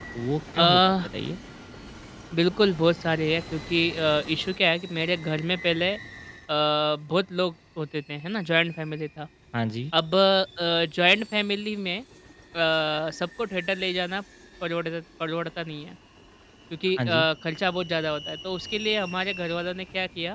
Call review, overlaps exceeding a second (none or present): none